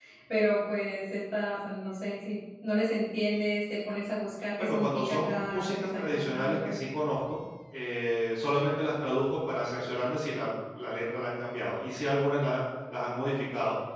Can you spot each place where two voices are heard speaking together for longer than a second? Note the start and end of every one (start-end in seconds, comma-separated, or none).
4.6-6.7